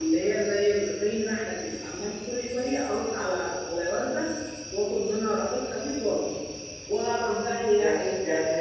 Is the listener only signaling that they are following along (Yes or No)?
No